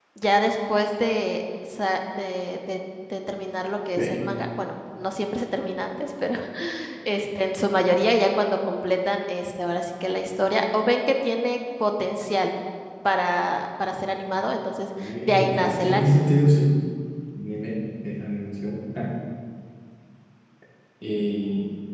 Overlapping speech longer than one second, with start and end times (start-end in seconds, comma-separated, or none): 15.0-16.3